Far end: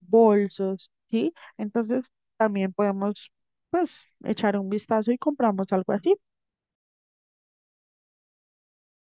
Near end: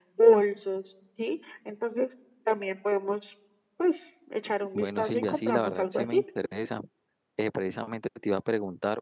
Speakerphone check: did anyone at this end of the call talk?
Yes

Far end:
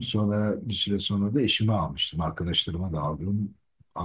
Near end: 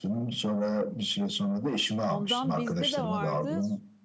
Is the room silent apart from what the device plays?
No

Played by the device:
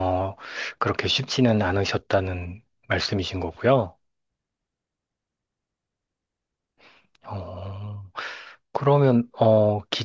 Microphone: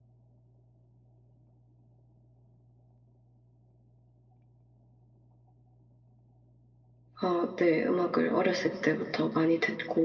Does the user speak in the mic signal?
Yes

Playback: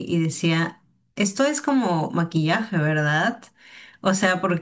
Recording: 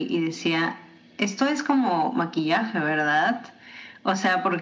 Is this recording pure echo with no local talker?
Yes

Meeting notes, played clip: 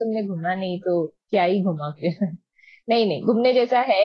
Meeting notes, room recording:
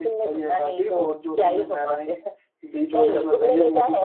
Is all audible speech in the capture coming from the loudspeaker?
No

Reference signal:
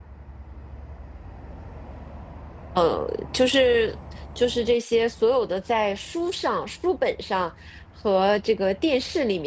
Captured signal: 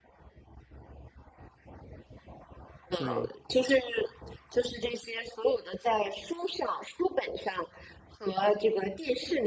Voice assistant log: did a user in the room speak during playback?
Yes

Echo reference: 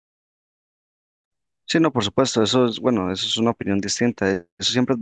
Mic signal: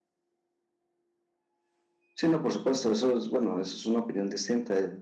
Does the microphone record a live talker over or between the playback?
No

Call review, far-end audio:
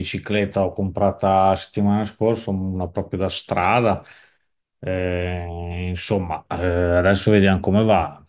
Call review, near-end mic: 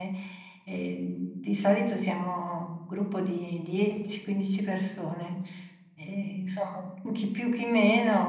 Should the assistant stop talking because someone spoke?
Yes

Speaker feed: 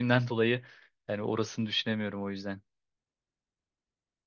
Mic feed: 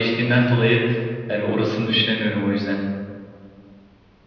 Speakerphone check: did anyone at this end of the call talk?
No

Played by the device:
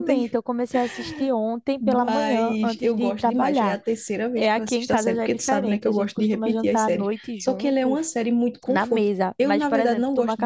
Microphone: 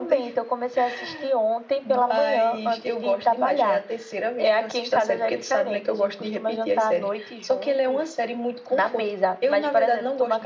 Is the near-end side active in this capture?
No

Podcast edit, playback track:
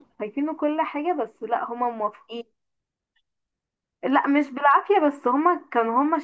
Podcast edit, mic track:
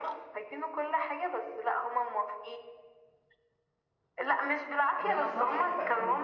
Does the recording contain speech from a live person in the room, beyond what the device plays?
Yes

